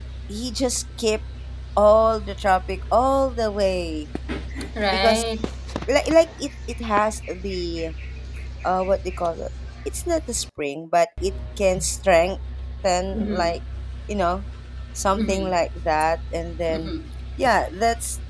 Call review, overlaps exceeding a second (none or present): none